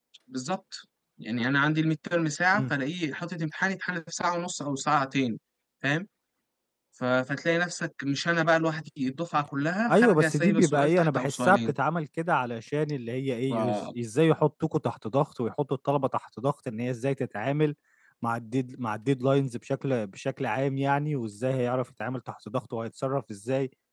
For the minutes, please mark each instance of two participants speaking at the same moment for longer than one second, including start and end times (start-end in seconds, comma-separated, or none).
9.9-11.8